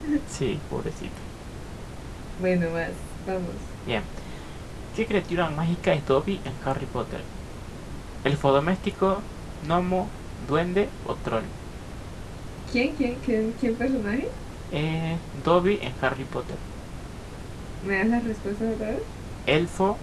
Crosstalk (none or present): none